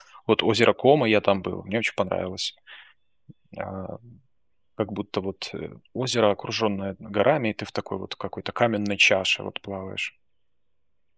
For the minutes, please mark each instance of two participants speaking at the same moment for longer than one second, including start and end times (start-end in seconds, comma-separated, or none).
none